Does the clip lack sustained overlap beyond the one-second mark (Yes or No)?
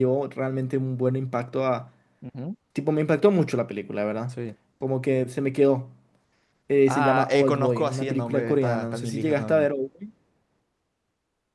No